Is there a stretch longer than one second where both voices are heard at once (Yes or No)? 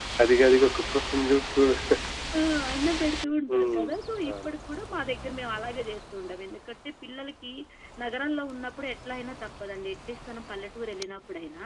No